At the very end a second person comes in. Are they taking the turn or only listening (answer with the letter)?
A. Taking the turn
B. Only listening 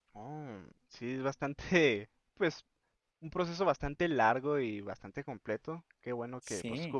B